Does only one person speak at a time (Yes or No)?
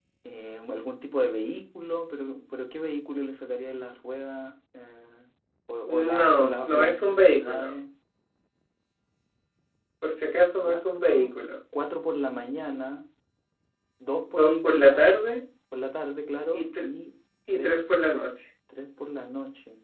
No